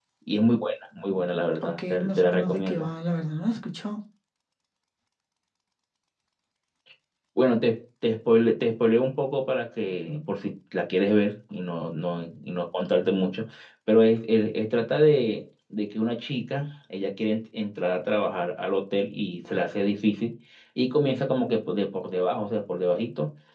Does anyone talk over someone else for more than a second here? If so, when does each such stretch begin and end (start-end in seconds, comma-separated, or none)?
1.6-2.9